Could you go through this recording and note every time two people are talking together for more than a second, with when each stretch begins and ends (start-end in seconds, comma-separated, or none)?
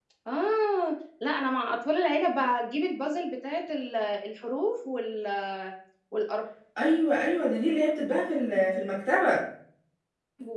none